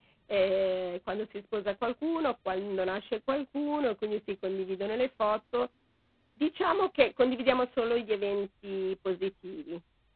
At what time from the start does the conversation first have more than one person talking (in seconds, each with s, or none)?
none